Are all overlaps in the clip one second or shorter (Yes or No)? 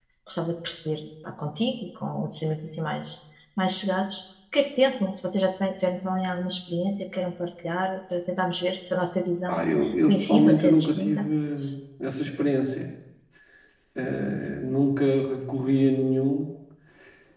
No